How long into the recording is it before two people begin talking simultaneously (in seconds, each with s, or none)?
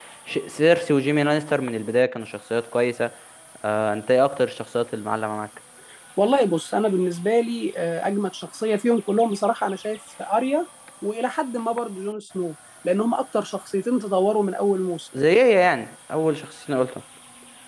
none